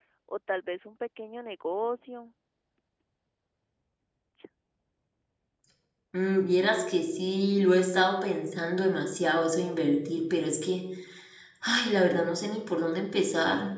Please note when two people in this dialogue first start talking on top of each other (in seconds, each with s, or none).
none